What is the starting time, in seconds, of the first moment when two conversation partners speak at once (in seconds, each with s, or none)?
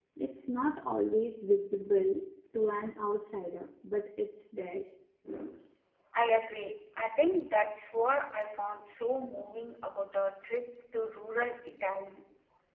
none